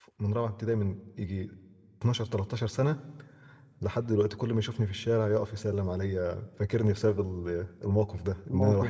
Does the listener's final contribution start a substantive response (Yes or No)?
No